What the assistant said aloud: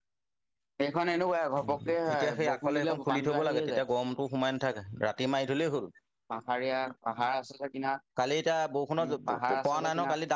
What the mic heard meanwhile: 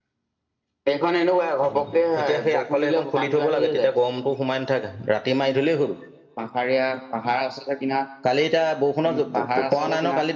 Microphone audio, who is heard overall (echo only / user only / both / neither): echo only